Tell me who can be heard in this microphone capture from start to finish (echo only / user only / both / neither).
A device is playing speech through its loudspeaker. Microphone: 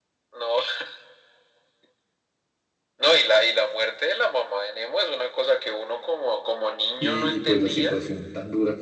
both